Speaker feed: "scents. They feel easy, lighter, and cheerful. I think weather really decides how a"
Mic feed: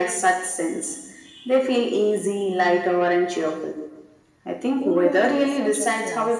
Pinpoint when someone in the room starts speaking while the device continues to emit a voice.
4.8 s

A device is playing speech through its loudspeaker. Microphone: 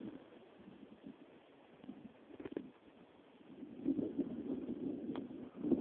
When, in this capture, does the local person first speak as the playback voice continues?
none

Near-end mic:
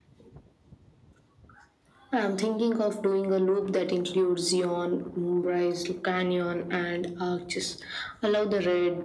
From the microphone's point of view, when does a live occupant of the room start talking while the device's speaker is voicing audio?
none

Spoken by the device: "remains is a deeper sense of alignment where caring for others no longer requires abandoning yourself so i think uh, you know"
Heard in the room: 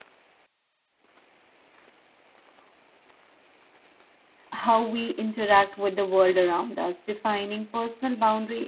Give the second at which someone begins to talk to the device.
4.5 s

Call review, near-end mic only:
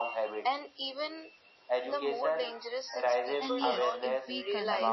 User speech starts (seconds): 3.4 s

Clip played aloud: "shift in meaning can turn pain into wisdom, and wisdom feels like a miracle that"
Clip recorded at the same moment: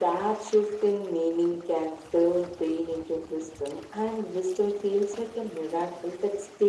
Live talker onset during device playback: none

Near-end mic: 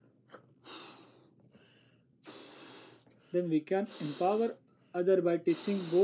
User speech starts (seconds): 3.3 s

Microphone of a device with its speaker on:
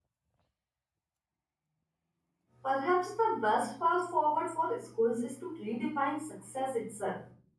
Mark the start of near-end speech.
2.6 s

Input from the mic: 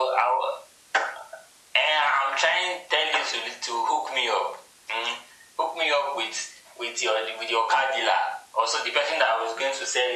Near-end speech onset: none

